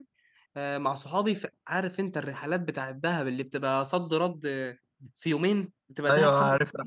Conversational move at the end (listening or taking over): taking over